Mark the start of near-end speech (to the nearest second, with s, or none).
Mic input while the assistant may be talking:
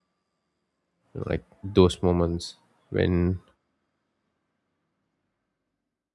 1 s